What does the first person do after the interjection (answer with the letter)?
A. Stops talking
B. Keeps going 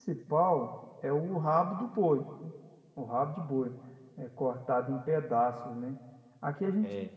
B